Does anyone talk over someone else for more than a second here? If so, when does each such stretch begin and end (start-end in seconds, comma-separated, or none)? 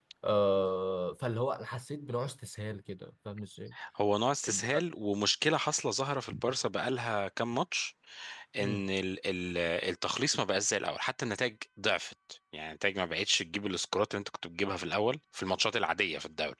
none